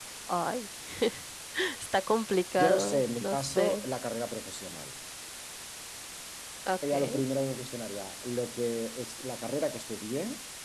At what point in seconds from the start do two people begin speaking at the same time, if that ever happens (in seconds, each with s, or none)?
2.6 s